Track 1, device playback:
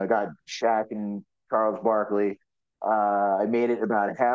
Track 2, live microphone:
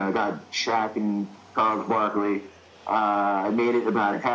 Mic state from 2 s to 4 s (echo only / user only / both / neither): echo only